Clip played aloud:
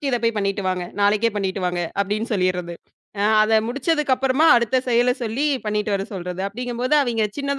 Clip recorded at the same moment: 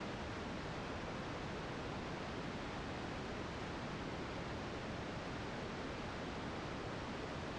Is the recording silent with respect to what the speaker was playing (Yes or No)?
Yes